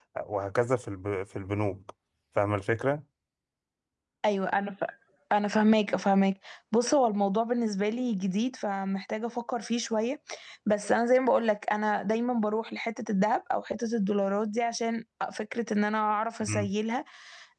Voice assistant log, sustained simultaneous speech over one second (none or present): none